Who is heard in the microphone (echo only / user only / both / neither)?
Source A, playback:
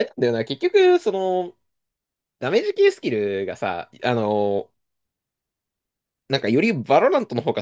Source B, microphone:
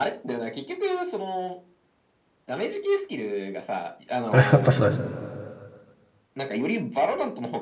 both